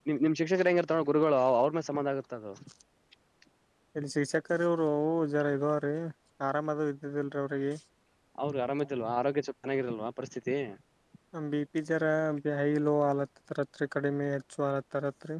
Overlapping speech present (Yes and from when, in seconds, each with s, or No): No